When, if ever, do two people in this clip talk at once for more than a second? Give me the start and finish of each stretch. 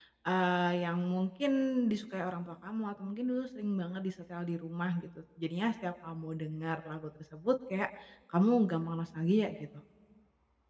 none

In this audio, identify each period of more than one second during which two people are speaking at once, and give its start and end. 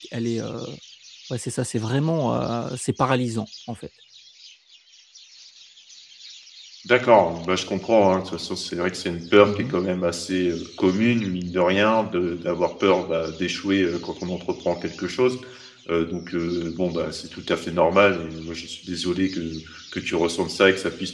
none

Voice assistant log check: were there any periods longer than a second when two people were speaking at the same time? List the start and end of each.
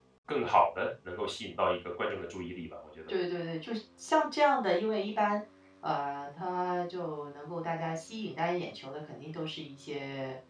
none

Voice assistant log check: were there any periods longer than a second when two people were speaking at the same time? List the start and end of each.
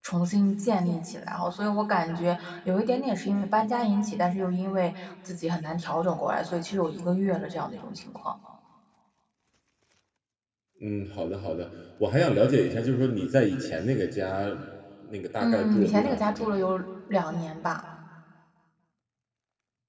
15.4-16.6

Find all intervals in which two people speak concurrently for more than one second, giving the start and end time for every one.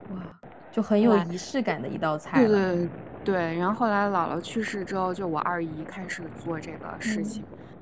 none

